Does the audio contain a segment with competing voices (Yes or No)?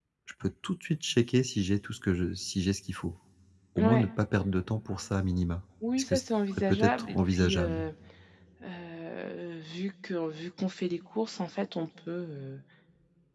Yes